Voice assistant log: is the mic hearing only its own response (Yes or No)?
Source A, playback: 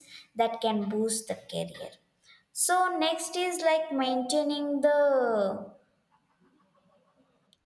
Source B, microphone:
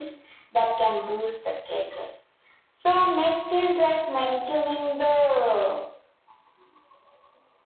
Yes